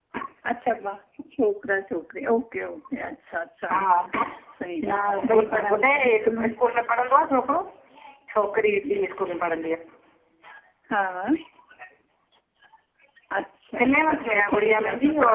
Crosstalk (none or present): present